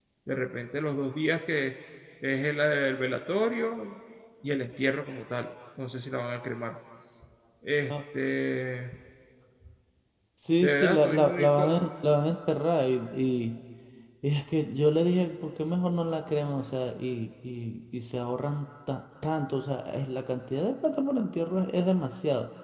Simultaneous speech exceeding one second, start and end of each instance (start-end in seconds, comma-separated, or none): 10.6-11.9